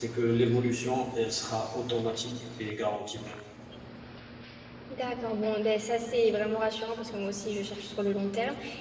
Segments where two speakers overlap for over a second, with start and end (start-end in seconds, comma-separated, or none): none